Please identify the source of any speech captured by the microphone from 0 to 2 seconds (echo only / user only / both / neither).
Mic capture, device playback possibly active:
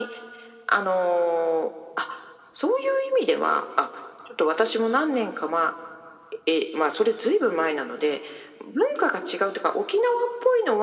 echo only